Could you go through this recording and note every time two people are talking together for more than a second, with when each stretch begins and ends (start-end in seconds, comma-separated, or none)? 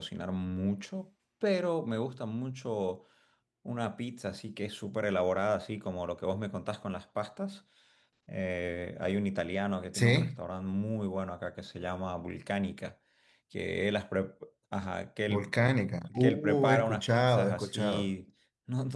16.2-18.1